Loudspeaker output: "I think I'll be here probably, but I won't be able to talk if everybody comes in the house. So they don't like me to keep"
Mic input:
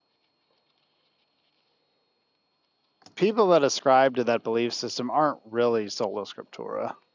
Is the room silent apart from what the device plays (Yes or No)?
No